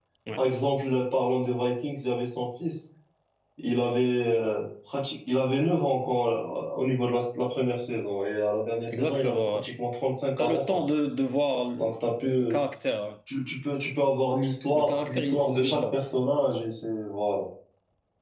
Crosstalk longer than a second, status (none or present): present